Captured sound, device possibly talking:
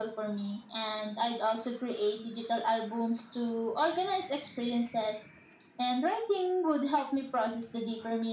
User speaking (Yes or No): No